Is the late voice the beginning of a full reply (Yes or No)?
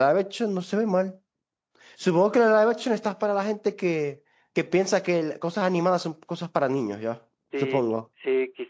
Yes